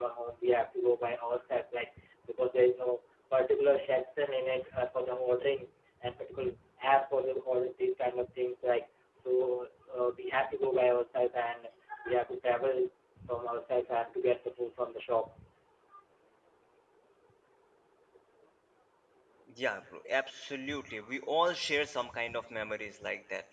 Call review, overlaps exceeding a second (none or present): none